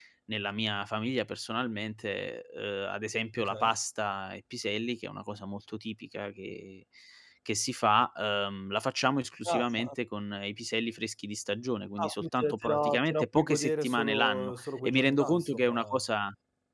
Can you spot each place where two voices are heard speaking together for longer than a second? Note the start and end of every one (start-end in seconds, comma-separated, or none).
12.0-16.0